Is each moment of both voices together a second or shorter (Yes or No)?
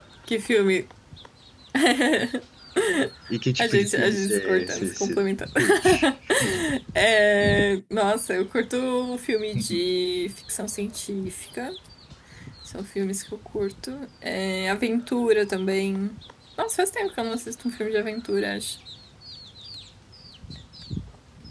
No